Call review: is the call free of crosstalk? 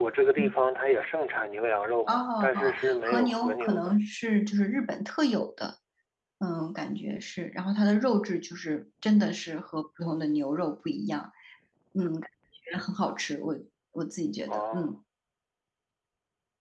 No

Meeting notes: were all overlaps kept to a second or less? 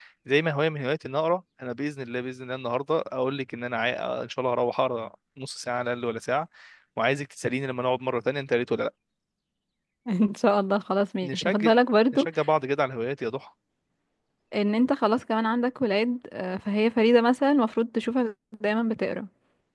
Yes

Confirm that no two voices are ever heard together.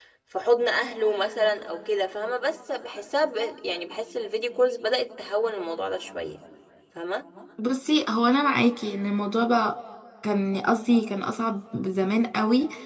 Yes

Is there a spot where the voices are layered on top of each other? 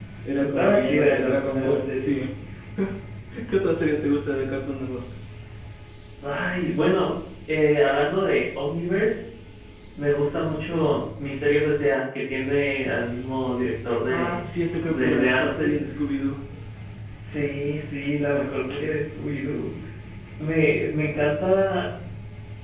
Yes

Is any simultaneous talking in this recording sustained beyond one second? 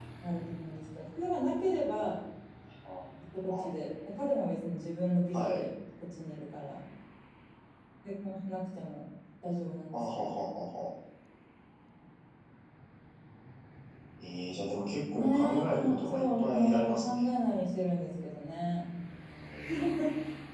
Yes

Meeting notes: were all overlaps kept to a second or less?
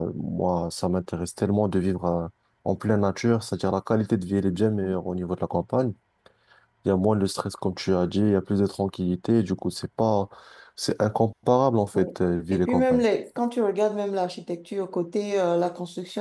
Yes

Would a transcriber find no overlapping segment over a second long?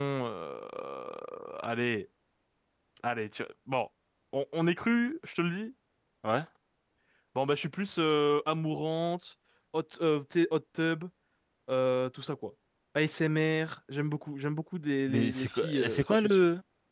No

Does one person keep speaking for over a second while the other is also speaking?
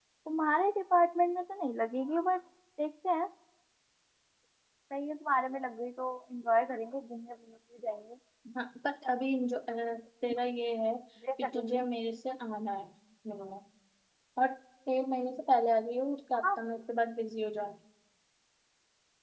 No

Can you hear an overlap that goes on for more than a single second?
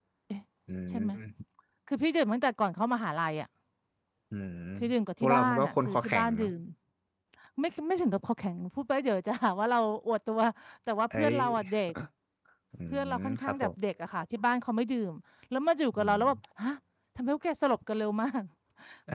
Yes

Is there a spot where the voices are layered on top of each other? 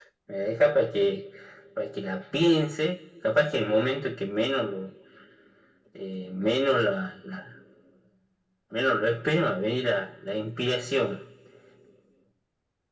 No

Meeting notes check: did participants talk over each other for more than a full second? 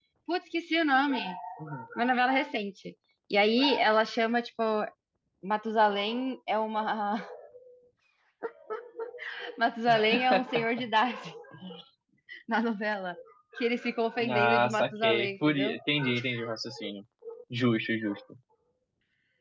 Yes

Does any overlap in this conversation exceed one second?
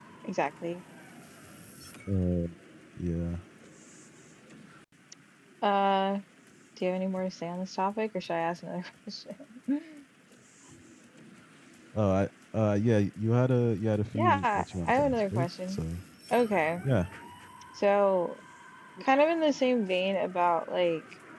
Yes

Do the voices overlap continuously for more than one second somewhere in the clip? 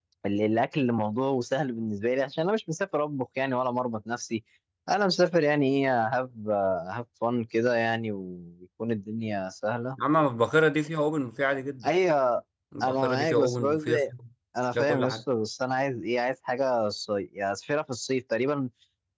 Yes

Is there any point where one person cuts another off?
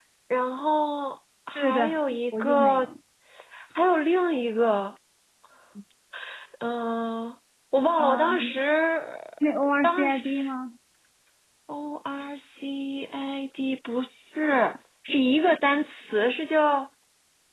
Yes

